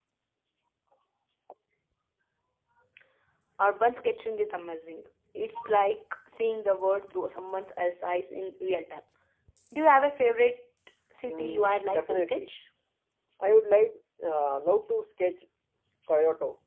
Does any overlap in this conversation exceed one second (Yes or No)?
Yes